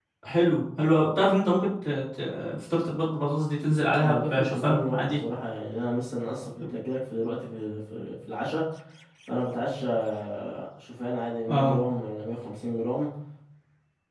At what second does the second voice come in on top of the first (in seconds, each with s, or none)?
4.0 s